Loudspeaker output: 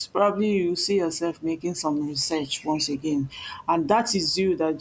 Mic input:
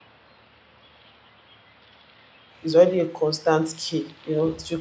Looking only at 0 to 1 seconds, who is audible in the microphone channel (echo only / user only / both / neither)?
neither